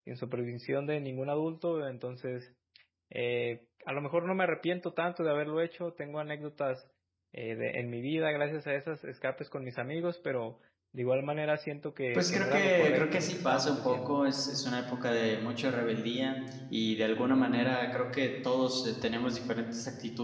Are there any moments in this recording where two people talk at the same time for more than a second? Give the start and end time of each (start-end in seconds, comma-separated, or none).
12.1-14.2